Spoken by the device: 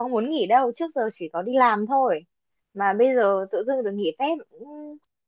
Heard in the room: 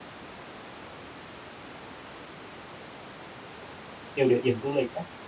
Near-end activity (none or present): present